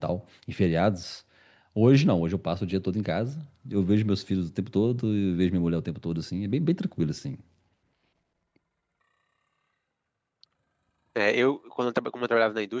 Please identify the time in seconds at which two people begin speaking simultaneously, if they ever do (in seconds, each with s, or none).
none